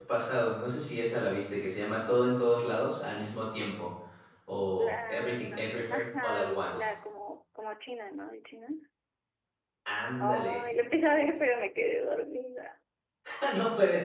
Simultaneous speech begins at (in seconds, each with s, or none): 4.8 s